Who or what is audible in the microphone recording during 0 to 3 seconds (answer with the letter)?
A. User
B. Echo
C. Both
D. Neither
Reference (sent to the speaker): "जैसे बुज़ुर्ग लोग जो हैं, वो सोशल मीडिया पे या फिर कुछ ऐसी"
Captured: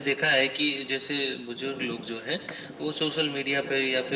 B